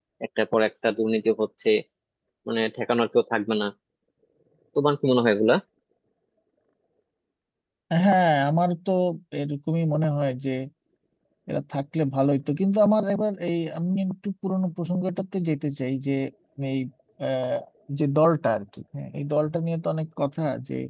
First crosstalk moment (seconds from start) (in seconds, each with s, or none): none